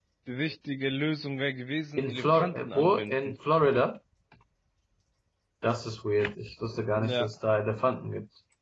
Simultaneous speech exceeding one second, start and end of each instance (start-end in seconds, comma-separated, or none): 2.0-3.4